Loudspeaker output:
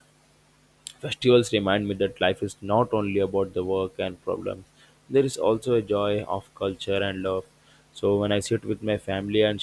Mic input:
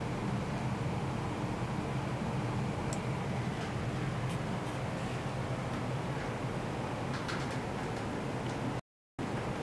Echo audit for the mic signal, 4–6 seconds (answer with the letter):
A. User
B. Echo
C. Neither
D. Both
C